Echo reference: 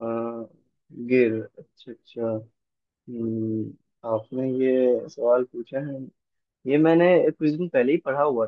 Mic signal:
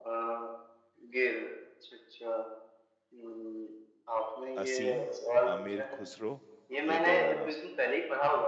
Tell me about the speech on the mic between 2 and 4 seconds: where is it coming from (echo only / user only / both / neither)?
echo only